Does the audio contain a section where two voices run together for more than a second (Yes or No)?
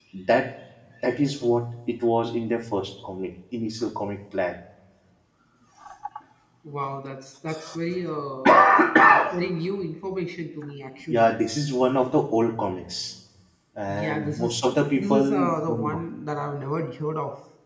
Yes